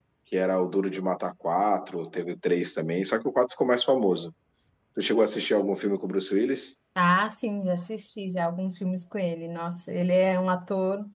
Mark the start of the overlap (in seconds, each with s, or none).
none